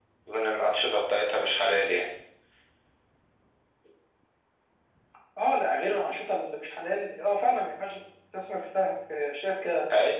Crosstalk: none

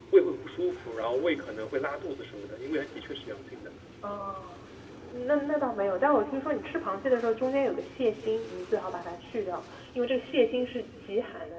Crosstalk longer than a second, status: none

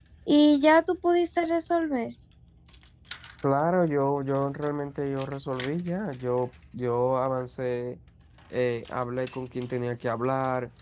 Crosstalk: none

